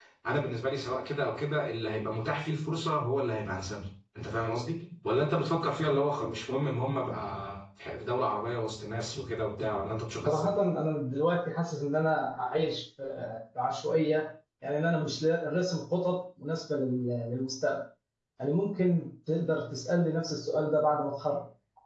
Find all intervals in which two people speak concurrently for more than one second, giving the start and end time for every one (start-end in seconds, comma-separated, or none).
none